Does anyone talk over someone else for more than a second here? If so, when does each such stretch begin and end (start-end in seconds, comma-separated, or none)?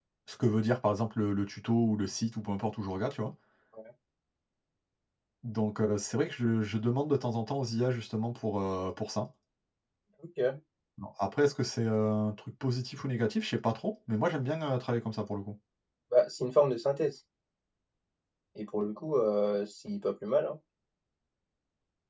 none